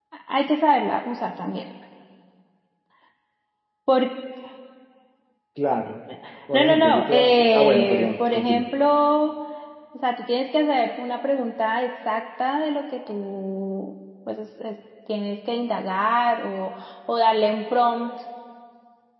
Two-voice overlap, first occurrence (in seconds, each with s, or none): 6.5 s